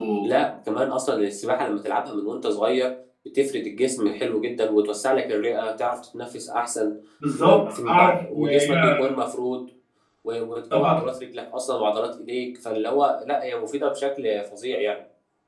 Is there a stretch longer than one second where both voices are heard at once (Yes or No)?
Yes